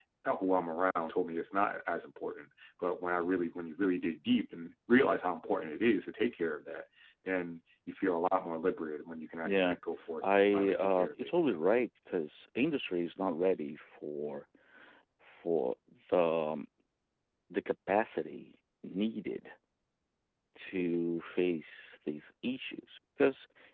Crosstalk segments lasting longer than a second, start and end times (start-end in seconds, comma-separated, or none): 10.2-11.6